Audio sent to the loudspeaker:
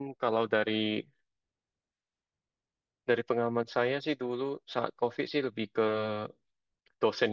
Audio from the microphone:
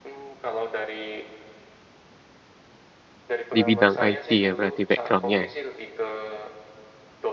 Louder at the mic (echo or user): user